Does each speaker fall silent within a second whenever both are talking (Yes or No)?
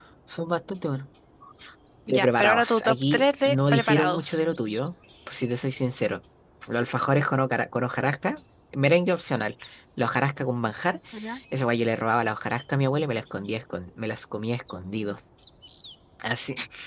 No